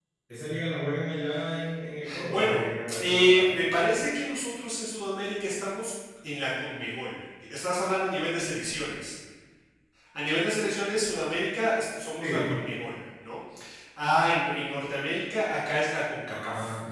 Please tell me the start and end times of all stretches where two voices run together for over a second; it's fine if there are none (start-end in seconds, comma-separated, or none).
2.3-3.5